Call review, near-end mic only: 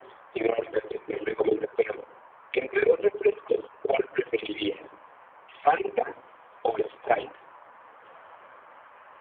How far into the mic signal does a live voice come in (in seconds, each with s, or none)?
none